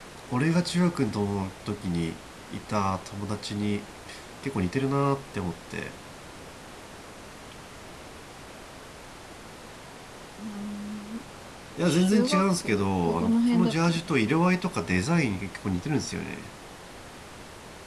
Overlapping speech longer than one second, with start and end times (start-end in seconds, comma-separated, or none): 11.8-14.4